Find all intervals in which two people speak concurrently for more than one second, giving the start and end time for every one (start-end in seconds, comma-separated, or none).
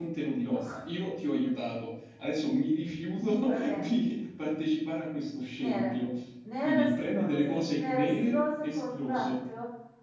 6.6-9.3